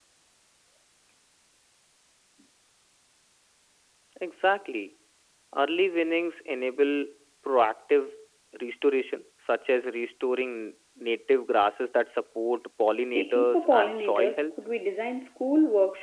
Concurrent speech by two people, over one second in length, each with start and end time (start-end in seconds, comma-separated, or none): 12.9-14.4